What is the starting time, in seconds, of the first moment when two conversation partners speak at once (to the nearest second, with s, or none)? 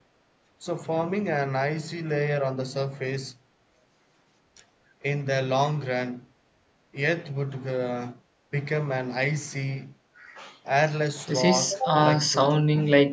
11 s